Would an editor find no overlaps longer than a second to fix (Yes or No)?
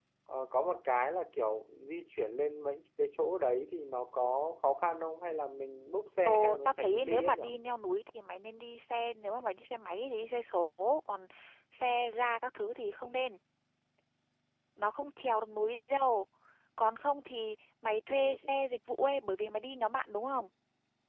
No